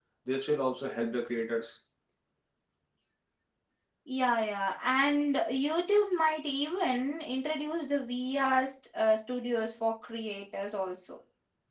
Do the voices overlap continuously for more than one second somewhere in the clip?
No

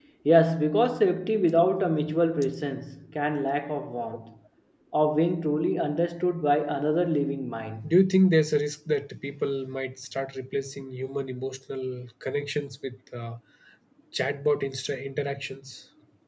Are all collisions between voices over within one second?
Yes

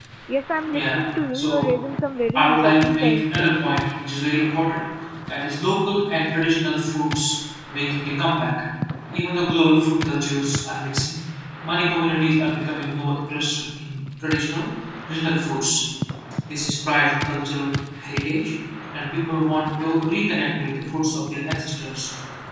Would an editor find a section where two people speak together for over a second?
Yes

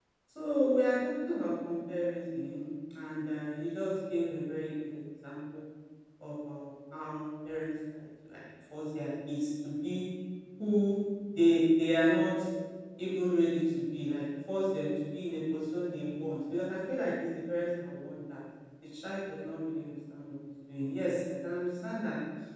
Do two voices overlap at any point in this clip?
No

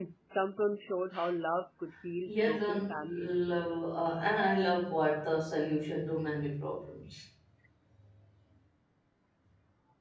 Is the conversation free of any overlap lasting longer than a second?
No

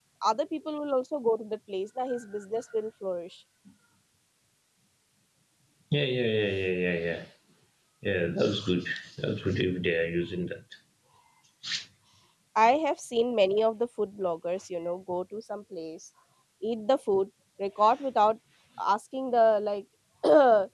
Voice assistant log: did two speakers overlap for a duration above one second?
No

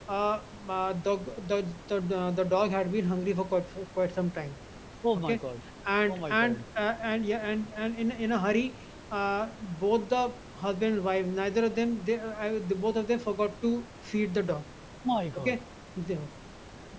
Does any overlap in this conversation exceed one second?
No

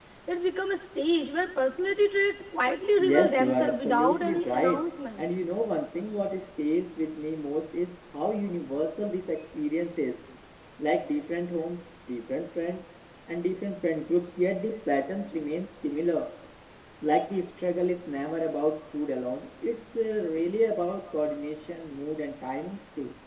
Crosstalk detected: Yes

